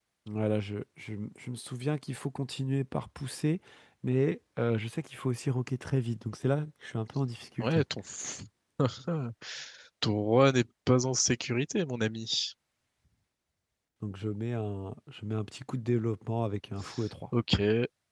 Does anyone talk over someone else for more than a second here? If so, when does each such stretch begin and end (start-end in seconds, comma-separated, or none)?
none